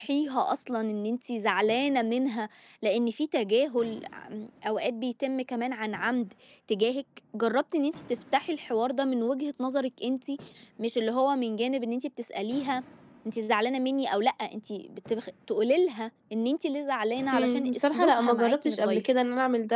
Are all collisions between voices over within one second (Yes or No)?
No